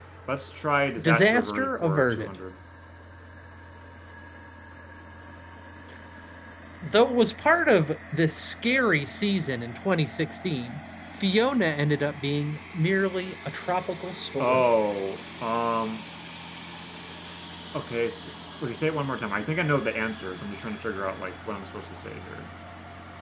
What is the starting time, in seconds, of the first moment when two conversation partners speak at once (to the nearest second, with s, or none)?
1 s